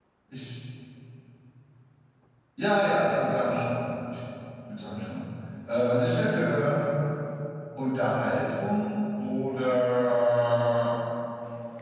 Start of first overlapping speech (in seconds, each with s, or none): none